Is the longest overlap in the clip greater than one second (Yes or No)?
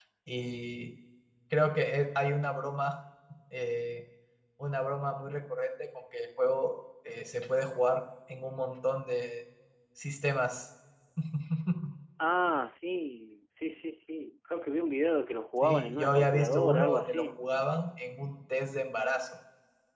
Yes